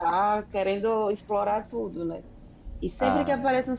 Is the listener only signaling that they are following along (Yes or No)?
Yes